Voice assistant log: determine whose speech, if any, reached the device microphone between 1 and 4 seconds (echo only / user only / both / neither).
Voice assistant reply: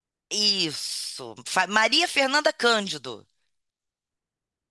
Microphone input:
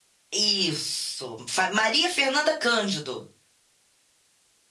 echo only